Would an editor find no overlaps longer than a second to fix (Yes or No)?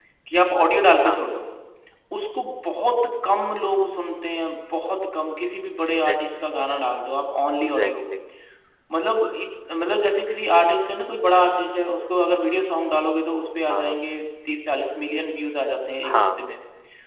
Yes